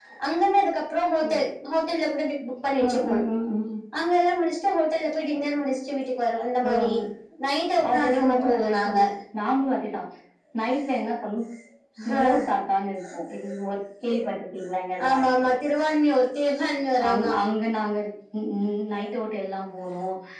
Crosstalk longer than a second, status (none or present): present